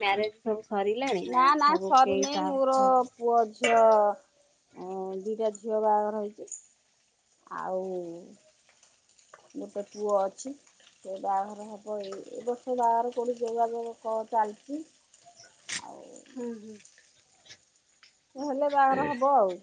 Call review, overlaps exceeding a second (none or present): present